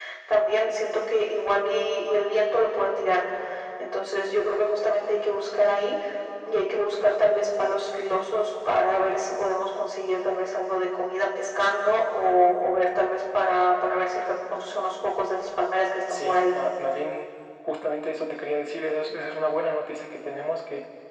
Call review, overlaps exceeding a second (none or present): none